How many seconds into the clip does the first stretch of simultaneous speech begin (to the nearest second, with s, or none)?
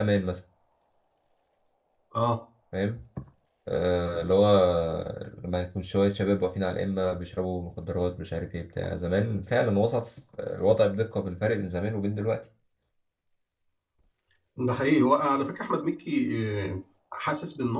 none